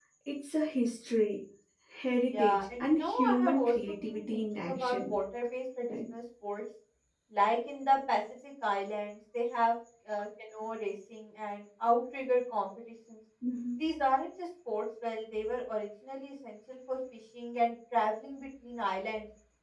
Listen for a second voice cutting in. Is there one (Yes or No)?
Yes